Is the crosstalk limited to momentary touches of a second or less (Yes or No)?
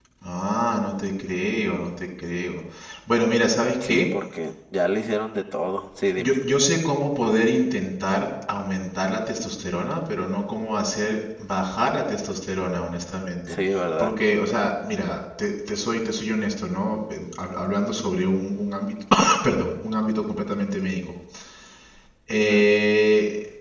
Yes